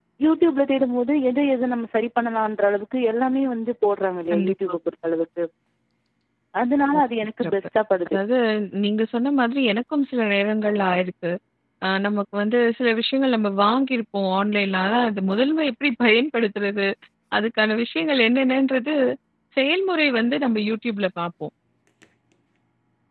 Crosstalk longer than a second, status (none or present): none